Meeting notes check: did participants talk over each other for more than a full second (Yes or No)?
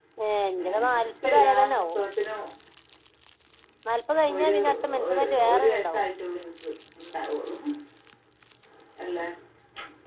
Yes